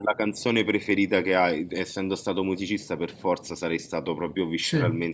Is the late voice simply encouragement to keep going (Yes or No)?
Yes